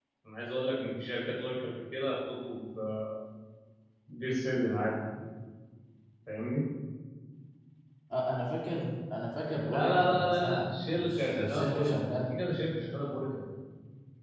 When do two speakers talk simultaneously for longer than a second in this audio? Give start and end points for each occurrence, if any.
9.6-12.4

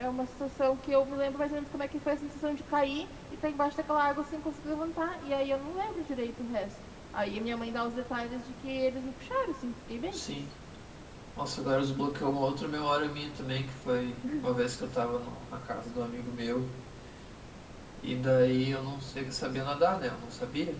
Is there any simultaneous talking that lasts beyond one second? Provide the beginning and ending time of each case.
none

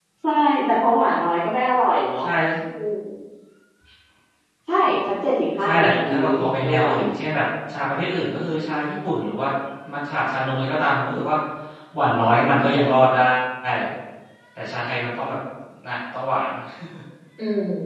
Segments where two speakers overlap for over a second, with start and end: 5.6-6.8

